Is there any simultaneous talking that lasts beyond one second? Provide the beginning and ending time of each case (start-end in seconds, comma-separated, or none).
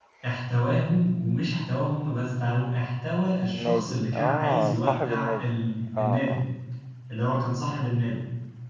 3.5-5.4